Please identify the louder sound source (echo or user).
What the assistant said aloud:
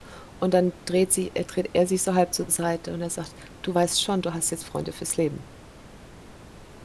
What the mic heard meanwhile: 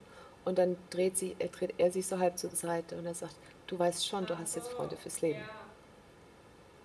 echo